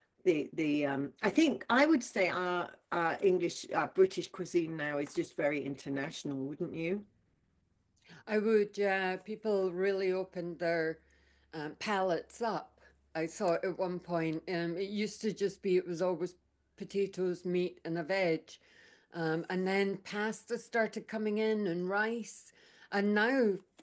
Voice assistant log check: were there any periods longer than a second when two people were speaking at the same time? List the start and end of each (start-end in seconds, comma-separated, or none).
none